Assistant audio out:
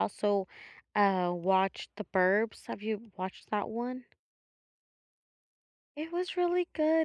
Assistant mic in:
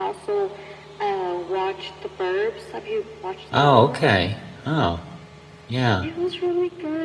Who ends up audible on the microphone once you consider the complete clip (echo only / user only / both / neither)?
both